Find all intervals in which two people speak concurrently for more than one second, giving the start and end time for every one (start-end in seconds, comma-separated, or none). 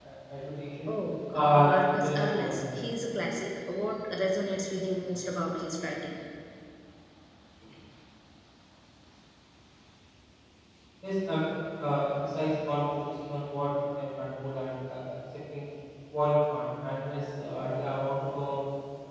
1.3-2.8